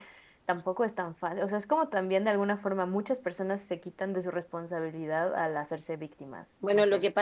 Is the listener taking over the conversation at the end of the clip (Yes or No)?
Yes